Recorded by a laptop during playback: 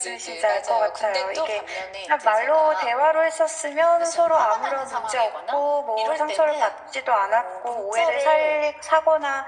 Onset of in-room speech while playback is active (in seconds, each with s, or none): none